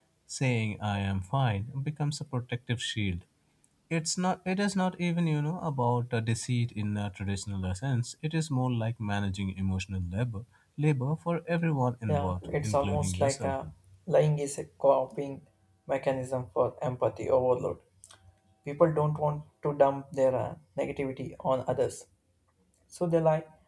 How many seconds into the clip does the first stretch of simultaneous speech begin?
12.1 s

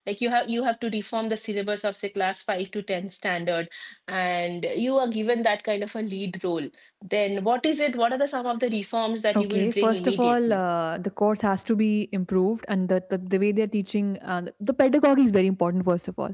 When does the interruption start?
9.3 s

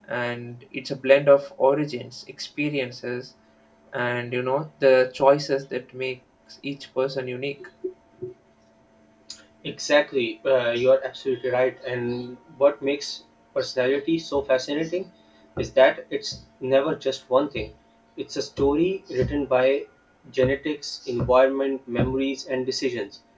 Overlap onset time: none

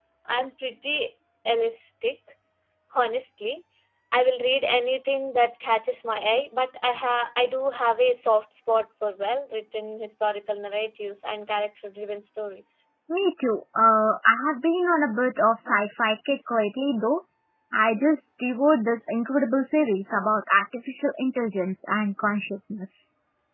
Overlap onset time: none

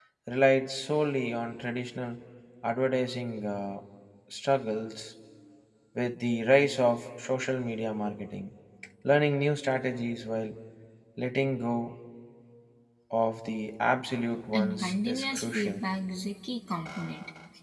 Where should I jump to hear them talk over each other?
14.5 s

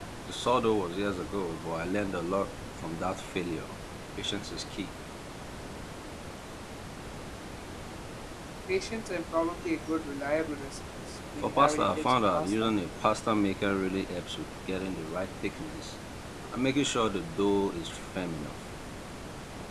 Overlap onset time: 11.4 s

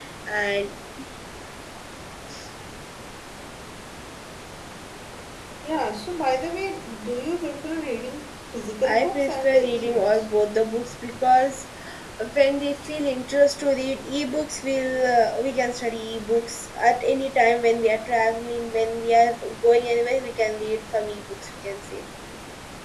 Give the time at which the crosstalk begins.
8.8 s

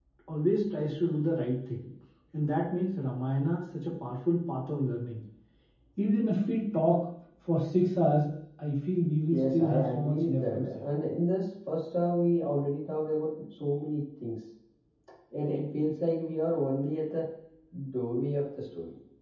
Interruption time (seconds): 9.3 s

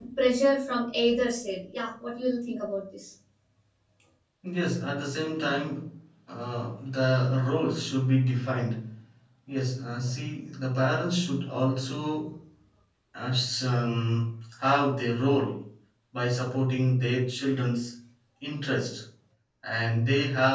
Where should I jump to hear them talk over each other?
none

